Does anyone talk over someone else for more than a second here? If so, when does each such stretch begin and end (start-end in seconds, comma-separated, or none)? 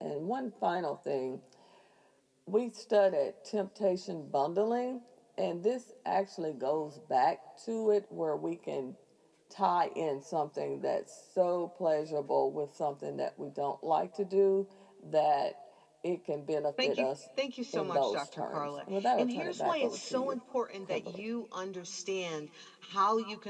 17.7-20.4